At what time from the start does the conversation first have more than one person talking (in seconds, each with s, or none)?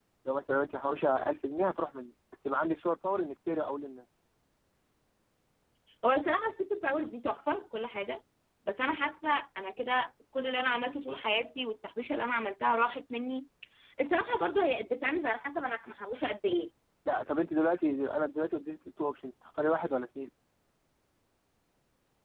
none